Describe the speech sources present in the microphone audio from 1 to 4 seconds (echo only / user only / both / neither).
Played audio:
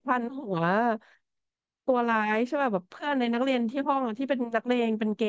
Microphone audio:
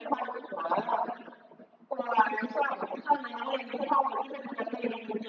echo only